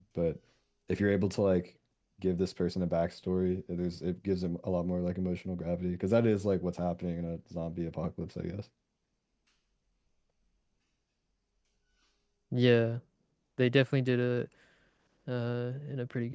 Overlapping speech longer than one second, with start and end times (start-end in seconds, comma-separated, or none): none